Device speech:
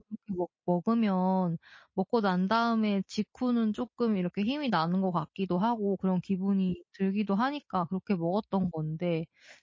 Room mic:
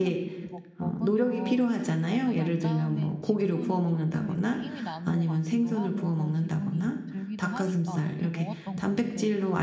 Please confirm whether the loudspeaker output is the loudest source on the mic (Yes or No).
No